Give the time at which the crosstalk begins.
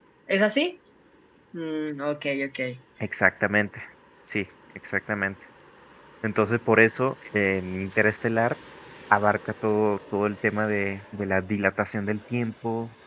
none

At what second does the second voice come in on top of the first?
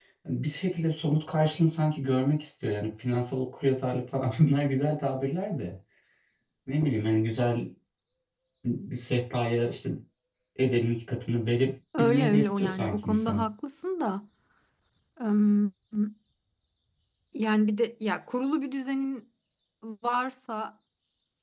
11.9 s

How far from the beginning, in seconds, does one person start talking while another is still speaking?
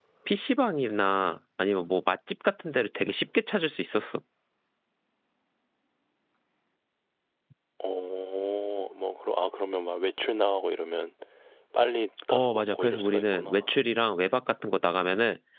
12.3 s

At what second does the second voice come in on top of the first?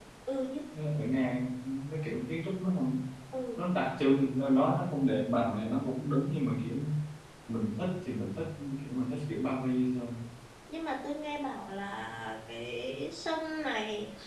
none

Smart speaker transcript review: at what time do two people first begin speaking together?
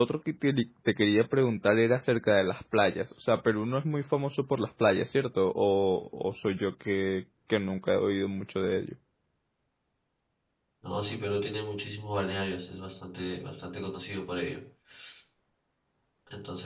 none

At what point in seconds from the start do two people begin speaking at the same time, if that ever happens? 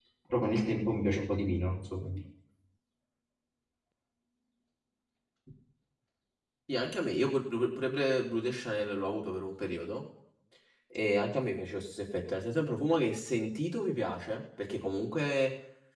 none

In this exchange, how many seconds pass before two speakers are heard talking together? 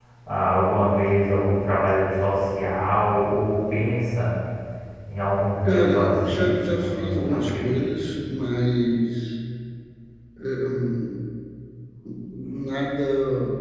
5.6 s

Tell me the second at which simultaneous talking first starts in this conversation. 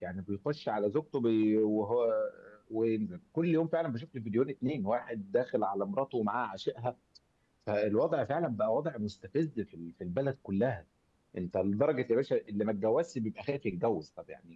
none

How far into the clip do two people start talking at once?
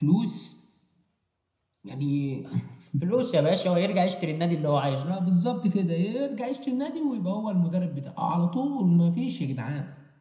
none

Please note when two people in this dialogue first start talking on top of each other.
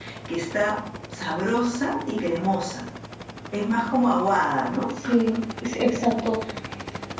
none

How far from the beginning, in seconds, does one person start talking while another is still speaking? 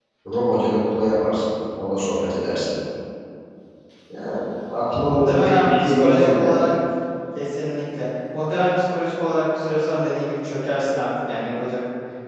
4.8 s

